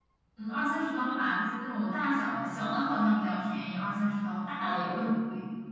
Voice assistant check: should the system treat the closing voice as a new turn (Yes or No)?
Yes